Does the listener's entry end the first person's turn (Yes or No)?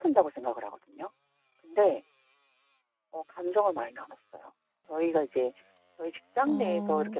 No